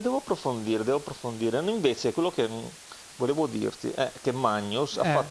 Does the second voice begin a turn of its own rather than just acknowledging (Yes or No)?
No